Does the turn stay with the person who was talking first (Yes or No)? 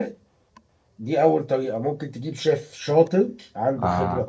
Yes